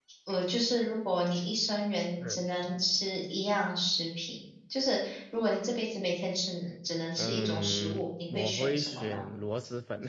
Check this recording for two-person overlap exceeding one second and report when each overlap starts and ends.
7.2-9.2

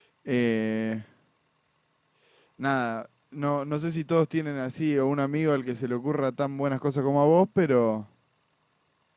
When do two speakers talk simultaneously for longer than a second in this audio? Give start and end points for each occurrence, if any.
none

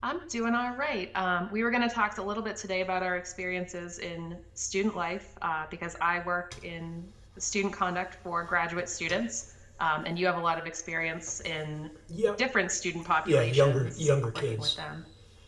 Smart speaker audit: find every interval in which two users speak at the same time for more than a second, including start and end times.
13.2-14.7

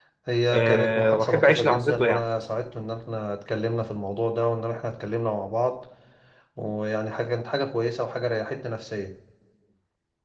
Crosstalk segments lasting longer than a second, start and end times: 0.5-2.2

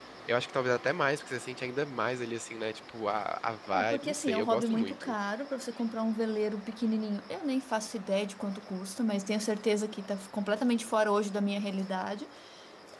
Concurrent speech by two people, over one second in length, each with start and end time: 3.7-5.2

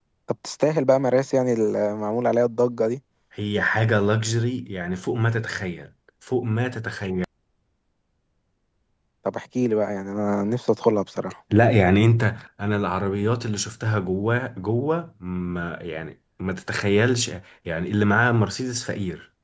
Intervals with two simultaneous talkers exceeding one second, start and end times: none

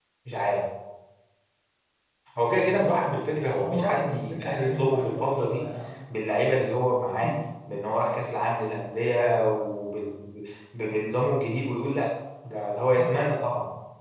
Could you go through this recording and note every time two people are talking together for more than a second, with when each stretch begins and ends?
3.5-5.6

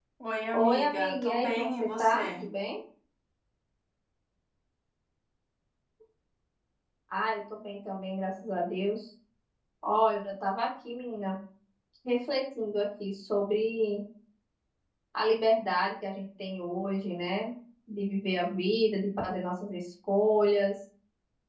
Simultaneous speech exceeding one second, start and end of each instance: 0.5-2.4

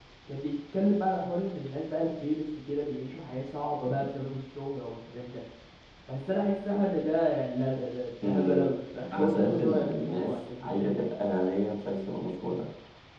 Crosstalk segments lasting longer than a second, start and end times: 9.1-11.0

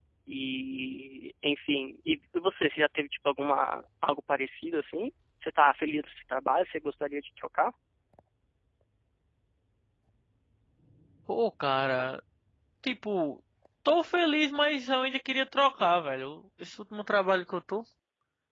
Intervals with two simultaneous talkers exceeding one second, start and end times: none

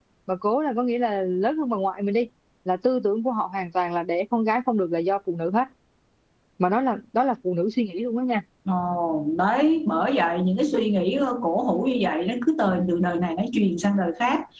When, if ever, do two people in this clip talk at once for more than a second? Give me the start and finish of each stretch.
none

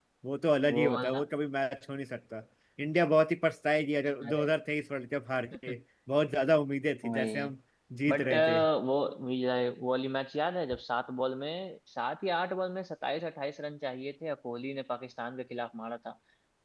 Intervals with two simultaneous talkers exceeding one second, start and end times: none

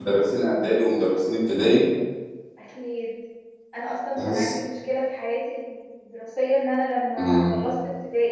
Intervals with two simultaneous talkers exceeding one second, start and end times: none

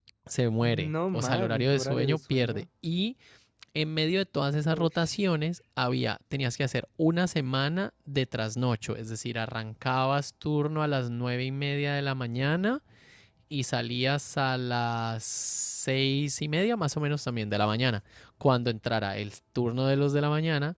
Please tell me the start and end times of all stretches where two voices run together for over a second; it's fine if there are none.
0.6-2.6

